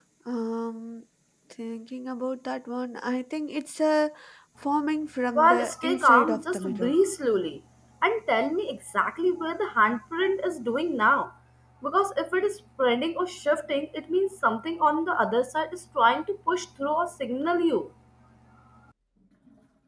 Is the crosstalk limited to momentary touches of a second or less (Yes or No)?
No